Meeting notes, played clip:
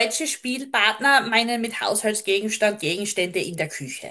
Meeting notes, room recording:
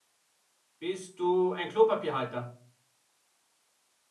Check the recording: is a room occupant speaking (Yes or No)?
Yes